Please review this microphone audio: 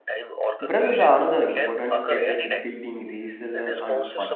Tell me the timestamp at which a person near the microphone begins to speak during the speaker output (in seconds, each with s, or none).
0.6 s